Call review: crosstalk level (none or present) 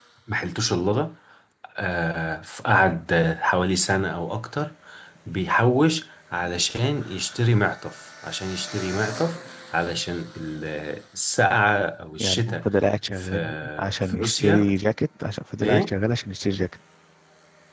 present